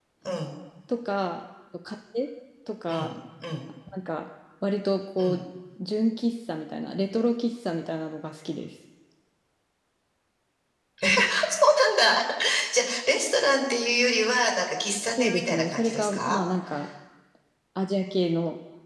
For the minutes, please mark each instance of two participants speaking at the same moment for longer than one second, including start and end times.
15.2-16.4

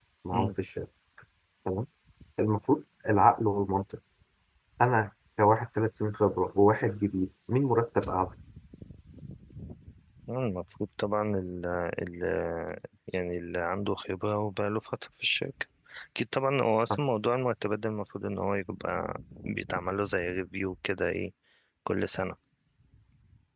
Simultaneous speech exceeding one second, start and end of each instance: none

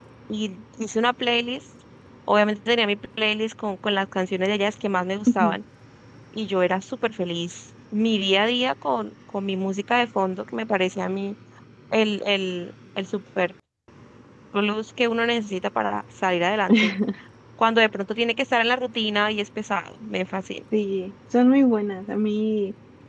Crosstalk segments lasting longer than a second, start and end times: none

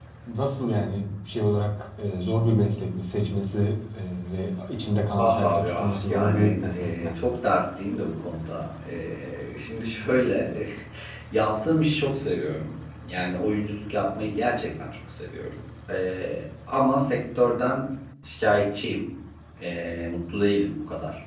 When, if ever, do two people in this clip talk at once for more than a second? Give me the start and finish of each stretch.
5.2-7.1

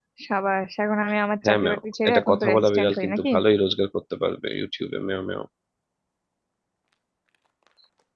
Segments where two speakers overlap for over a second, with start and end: 1.4-3.3

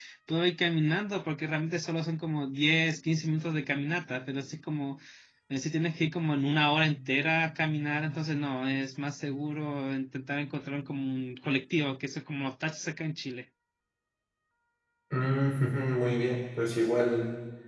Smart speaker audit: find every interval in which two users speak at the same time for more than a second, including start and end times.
none

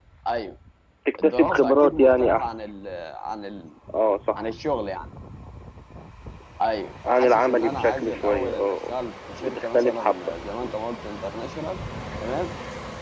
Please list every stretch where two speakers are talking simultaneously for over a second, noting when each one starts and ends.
1.2-2.5, 7.1-8.9, 9.4-10.7

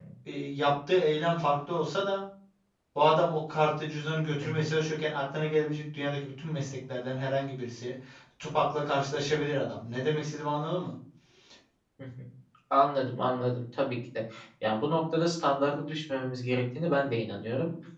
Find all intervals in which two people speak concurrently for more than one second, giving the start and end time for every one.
none

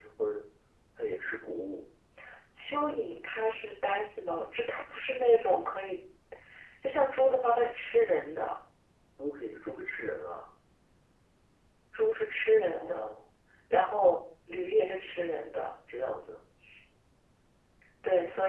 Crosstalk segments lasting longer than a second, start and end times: none

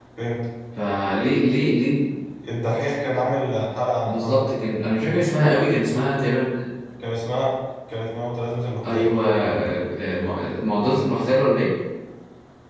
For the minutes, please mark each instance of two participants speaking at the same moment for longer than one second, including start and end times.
none

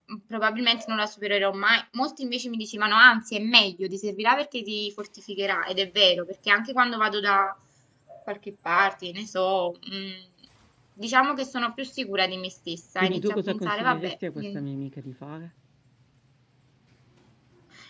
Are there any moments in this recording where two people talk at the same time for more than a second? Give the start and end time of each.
13.0-14.6

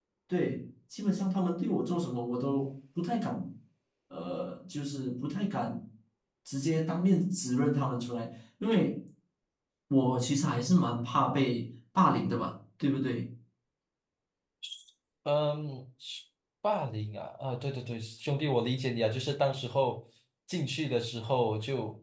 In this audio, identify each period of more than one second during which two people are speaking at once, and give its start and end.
none

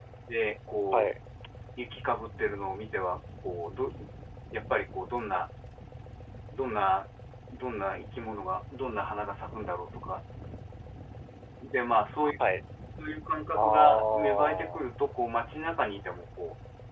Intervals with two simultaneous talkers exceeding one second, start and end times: 13.5-14.8

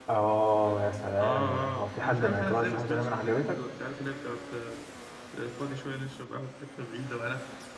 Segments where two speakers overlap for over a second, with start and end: 1.2-3.5

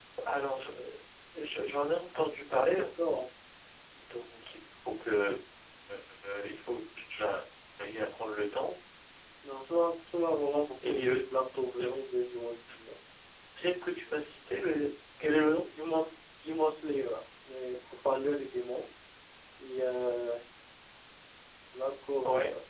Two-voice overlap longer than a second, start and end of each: none

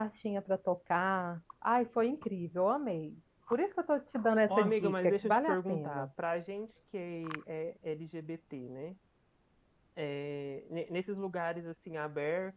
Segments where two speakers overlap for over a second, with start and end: 4.5-6.1

